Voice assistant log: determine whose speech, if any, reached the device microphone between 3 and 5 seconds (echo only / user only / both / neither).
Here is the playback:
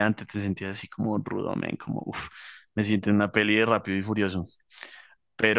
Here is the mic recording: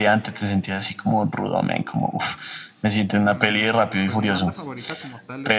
both